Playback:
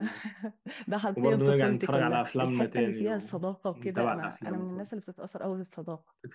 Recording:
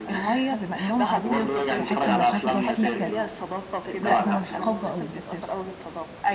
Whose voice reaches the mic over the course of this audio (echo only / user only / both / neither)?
both